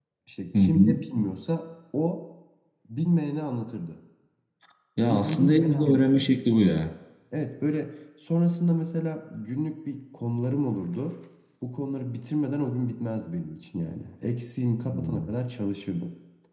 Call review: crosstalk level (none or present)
present